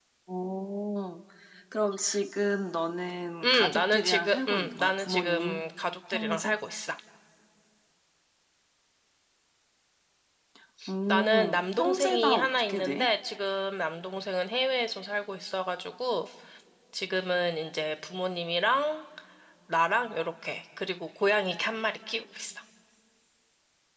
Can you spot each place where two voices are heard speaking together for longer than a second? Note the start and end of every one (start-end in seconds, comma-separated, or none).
3.4-5.6, 11.1-13.1